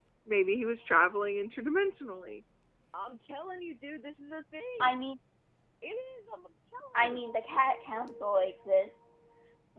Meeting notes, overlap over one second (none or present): none